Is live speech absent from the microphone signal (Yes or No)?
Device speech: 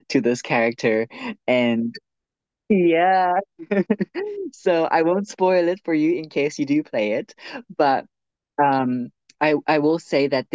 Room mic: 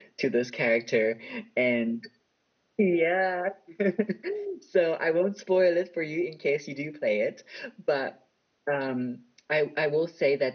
Yes